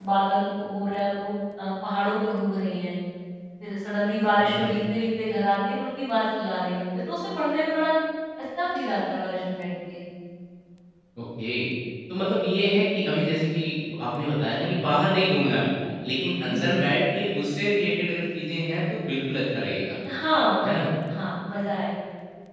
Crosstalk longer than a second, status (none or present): none